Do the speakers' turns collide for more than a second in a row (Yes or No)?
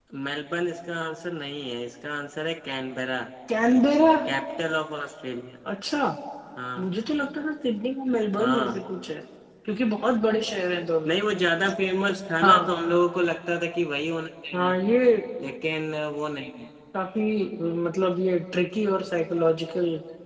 No